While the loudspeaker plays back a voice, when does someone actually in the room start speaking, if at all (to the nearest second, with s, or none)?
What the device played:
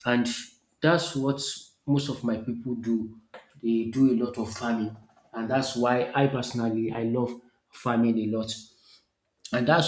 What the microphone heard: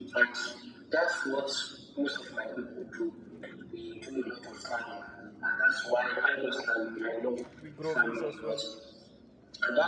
8 s